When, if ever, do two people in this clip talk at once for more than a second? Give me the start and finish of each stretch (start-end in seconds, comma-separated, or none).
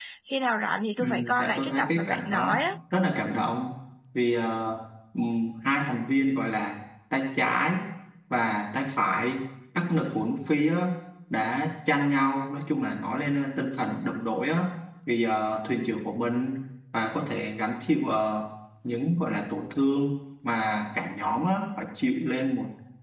1.0-2.6